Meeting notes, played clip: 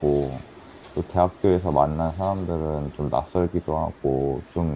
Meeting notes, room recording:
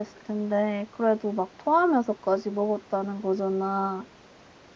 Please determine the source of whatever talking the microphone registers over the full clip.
user only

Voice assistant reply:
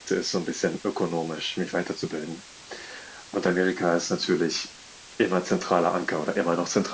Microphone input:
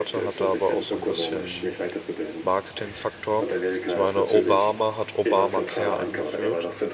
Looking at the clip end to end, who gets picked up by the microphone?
both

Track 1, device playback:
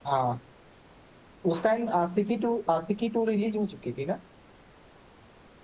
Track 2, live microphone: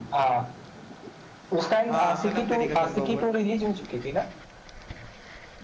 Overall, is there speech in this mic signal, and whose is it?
both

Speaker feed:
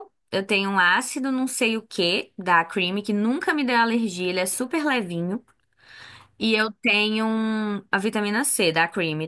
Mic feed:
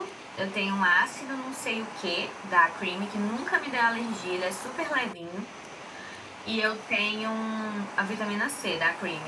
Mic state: echo only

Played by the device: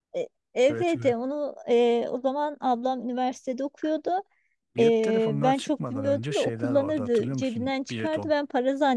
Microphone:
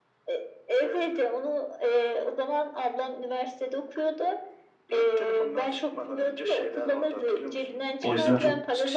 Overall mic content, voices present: both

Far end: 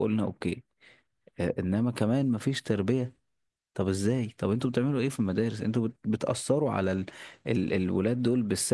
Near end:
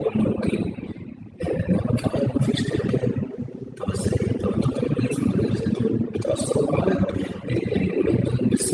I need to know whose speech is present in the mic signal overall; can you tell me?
echo only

